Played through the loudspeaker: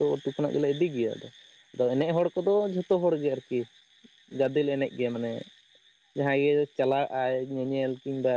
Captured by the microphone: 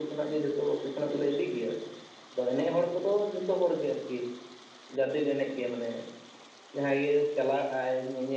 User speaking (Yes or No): No